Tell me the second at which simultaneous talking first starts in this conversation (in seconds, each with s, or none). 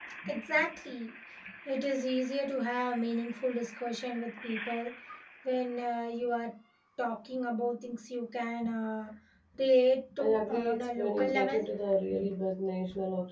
10.2 s